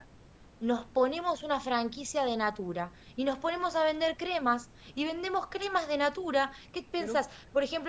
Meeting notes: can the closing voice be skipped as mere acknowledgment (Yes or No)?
Yes